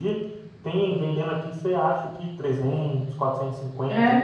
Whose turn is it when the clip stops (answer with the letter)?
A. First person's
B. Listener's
A